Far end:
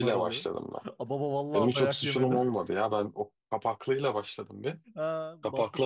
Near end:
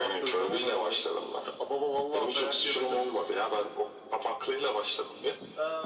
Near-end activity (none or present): none